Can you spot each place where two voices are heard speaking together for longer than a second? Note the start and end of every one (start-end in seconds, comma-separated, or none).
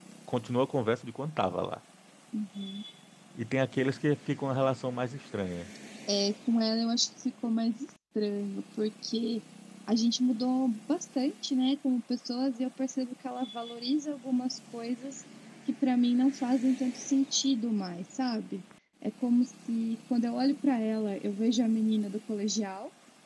none